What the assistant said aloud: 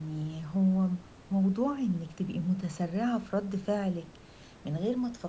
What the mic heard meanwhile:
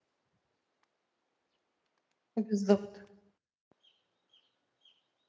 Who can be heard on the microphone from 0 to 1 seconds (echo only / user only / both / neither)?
neither